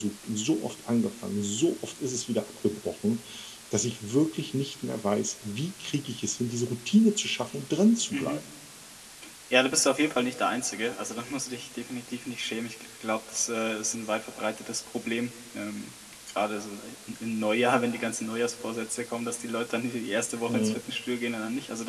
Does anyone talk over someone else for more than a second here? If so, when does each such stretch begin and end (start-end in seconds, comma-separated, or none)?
none